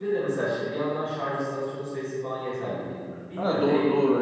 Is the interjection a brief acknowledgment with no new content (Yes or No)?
No